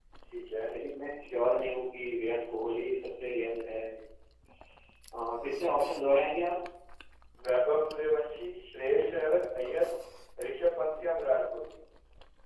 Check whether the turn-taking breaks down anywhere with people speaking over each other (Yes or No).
No